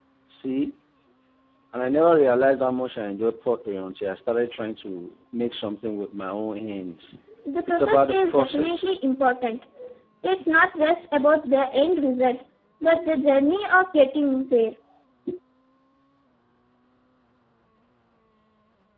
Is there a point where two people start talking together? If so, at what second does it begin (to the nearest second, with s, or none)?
8 s